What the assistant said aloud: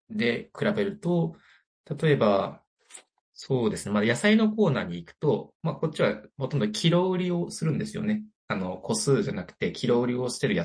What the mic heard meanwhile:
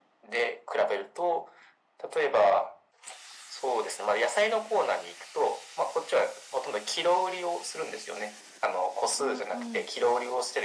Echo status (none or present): present